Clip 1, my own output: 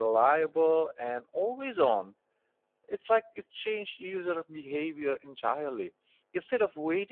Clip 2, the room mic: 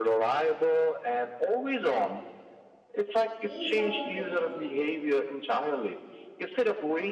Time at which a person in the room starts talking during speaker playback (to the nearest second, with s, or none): 3 s